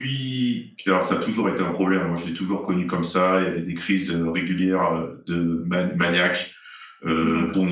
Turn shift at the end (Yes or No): No